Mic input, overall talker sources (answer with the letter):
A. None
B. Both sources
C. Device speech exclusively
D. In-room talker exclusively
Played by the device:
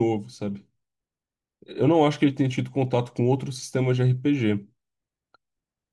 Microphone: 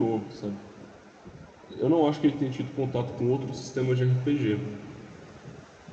C